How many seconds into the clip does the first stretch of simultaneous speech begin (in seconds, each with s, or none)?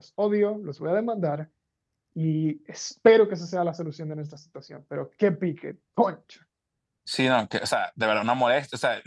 none